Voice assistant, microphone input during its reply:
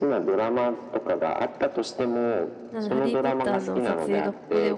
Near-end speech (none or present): present